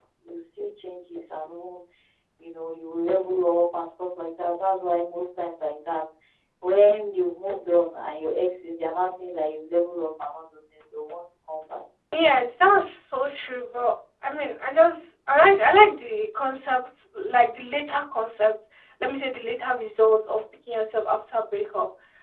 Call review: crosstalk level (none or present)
none